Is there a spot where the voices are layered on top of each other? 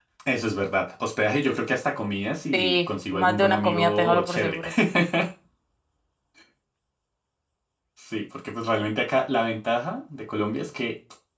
Yes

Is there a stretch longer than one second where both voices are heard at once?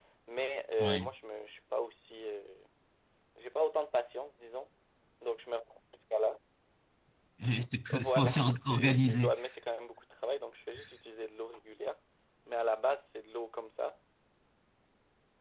Yes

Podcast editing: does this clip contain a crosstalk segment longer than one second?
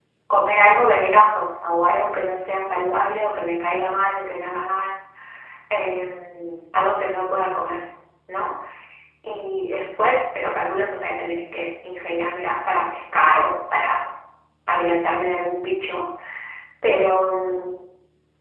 No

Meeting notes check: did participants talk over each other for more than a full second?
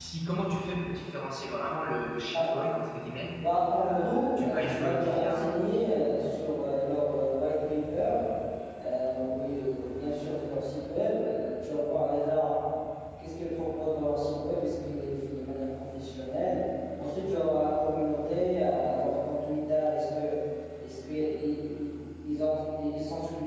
Yes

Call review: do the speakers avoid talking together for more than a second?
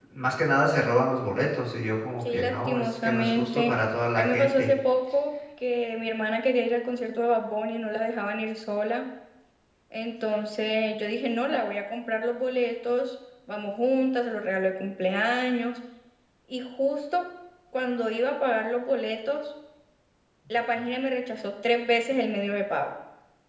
No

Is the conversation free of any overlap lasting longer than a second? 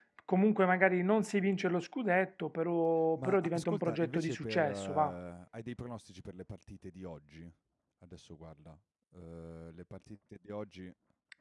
No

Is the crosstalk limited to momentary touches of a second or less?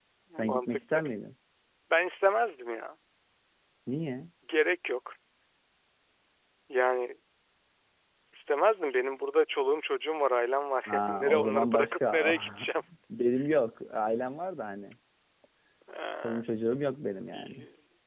No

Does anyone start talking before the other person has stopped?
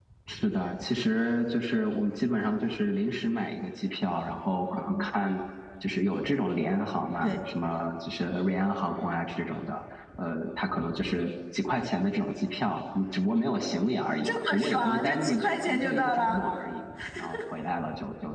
Yes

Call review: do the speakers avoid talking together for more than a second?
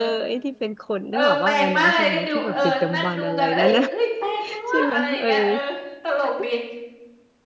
No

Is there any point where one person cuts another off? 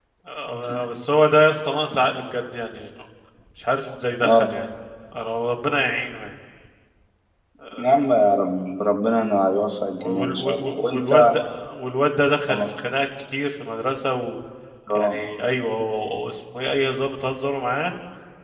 Yes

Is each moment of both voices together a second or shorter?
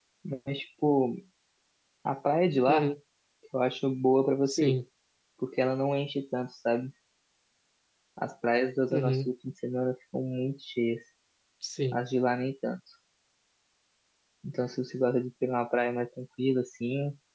Yes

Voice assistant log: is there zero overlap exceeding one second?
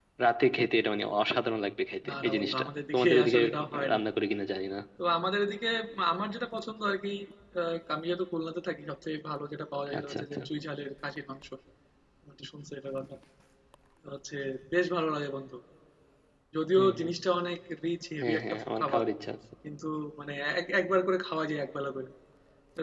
No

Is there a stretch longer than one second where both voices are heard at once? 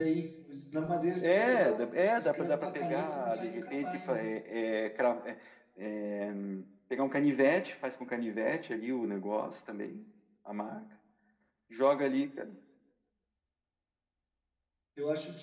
Yes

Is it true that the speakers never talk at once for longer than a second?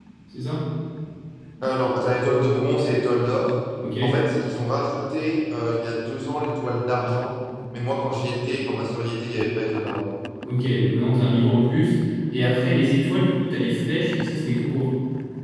Yes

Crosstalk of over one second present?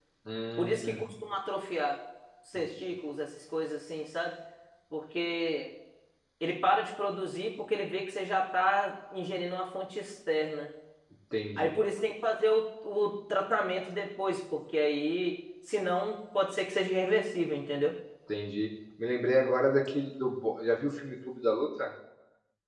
No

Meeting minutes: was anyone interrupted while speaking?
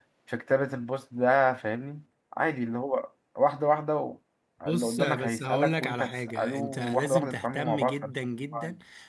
Yes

